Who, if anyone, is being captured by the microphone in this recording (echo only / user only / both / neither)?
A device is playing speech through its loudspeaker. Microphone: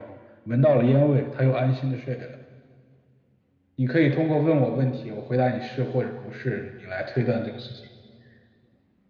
echo only